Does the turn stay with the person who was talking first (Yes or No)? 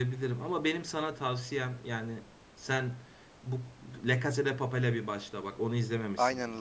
No